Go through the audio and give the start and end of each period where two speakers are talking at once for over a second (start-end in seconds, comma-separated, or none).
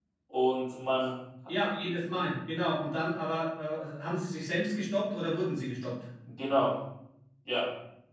none